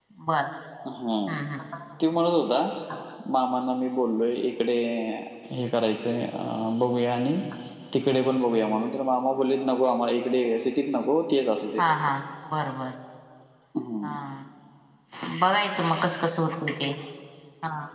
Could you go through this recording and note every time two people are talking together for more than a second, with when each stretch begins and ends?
none

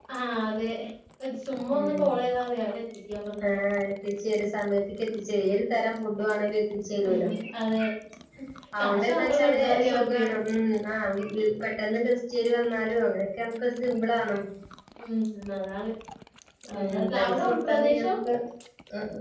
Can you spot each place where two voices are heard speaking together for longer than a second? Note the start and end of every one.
8.8-10.2, 16.8-18.1

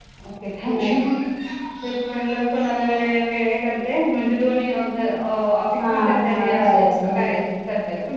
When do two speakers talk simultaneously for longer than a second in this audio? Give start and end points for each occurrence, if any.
5.8-7.4

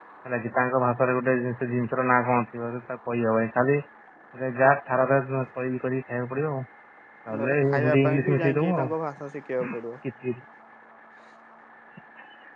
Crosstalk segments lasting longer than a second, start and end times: 7.4-8.9

